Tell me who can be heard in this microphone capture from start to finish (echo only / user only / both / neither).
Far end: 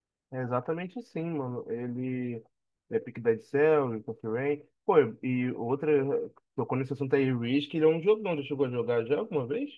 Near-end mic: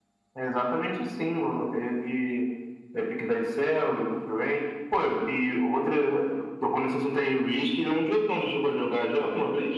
echo only